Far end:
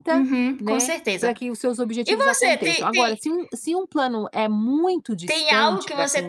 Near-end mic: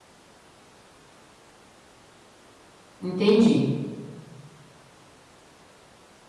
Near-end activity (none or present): present